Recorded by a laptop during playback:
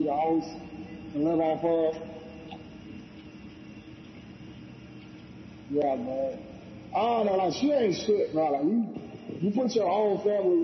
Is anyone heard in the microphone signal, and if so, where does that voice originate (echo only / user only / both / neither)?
echo only